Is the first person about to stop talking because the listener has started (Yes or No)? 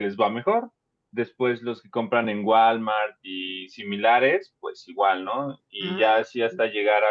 No